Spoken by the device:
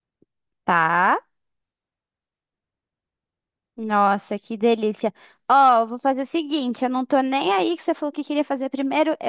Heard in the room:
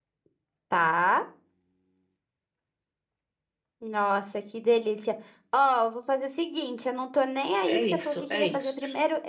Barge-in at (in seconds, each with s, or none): 7.7 s